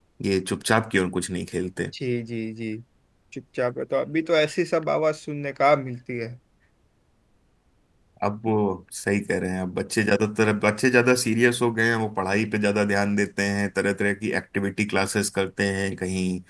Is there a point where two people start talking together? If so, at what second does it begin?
none

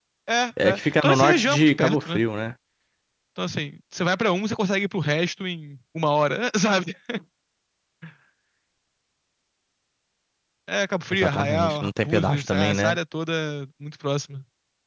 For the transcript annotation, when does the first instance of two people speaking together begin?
0.6 s

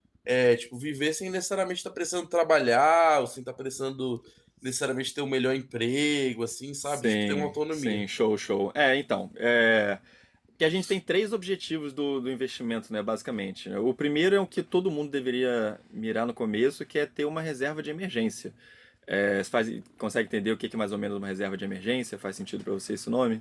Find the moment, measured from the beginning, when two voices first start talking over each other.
6.8 s

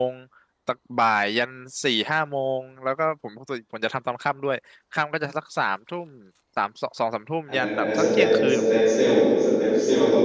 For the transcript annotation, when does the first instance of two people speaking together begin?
7.5 s

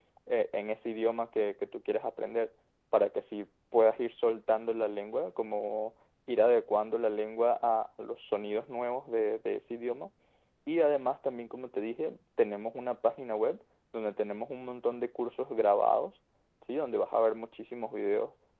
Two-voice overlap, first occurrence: none

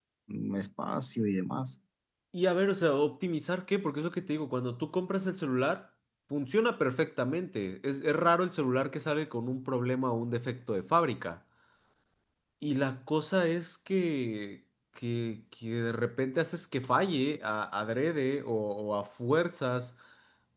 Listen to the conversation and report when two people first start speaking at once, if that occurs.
none

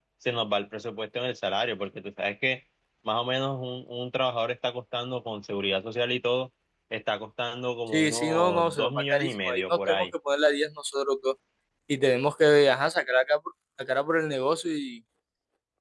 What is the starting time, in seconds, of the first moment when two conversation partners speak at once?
7.9 s

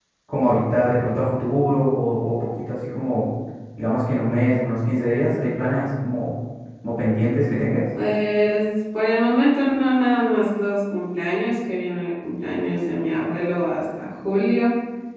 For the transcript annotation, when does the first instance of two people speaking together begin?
none

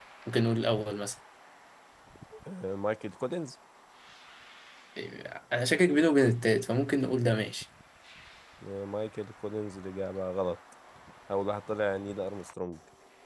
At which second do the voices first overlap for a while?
none

